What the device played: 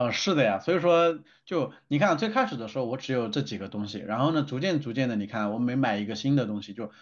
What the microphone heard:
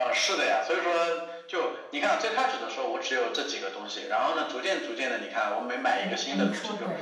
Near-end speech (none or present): present